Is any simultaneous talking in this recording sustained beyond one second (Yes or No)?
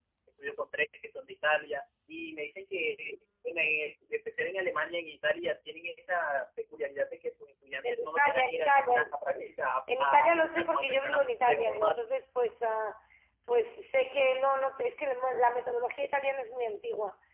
Yes